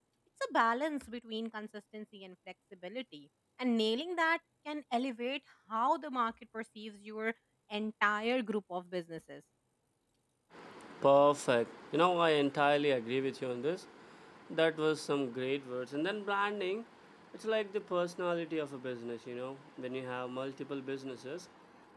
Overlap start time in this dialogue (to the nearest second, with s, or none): none